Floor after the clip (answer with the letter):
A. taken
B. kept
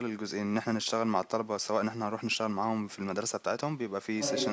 B